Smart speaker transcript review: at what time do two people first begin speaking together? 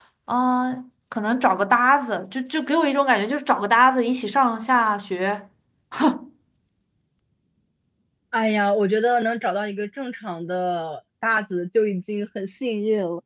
none

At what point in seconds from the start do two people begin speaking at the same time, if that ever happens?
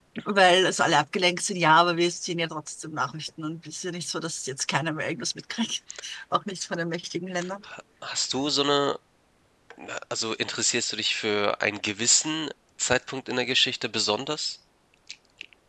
none

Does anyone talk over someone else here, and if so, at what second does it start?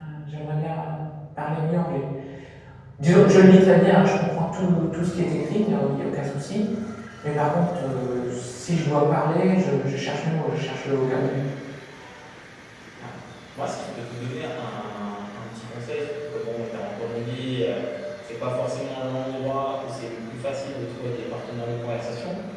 none

